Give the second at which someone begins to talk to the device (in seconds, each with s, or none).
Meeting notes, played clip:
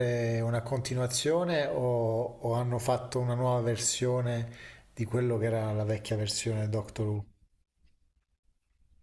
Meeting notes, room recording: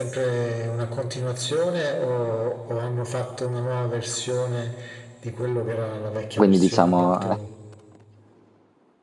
6.3 s